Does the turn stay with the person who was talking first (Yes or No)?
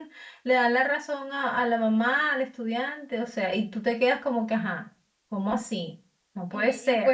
No